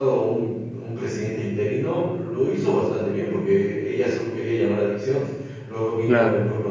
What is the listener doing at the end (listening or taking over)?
listening